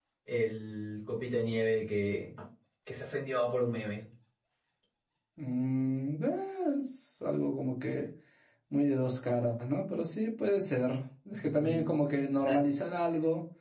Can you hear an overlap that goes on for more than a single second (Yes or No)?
No